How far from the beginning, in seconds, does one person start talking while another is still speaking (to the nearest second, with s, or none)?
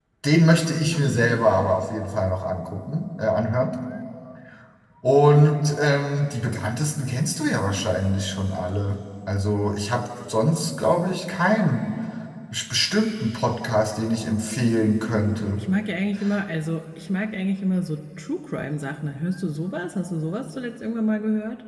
none